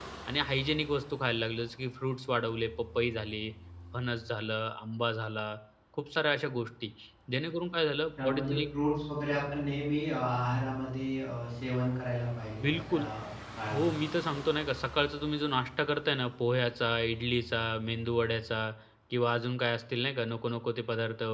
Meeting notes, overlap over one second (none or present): none